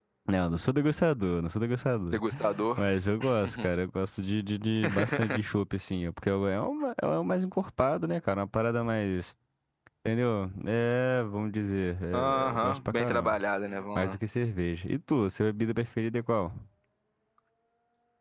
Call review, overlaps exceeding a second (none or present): present